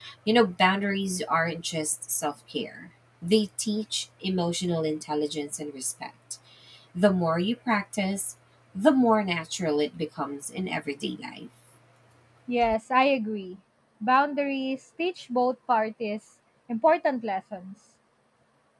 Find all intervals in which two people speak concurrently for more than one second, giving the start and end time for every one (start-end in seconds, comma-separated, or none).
none